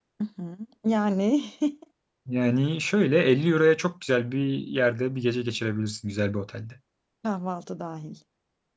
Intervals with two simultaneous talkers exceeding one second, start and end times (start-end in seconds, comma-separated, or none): none